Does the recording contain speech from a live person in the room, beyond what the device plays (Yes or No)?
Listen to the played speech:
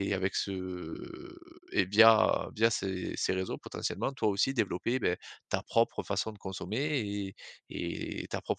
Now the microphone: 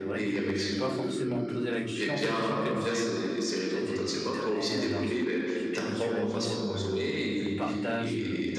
Yes